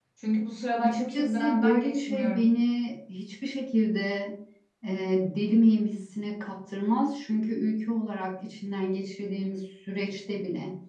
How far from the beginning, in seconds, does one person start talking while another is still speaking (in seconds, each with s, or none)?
0.8 s